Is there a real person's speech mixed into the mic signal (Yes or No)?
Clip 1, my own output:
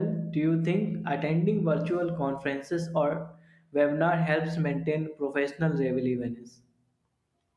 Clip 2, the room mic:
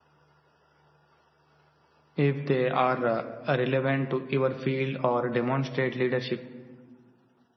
Yes